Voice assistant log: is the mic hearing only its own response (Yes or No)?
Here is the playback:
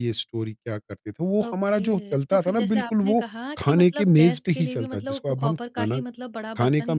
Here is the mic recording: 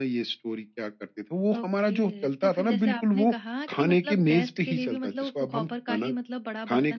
Yes